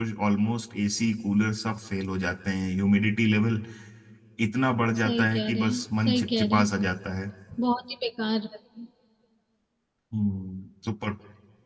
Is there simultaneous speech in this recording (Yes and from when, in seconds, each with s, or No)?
Yes, from 5.0 s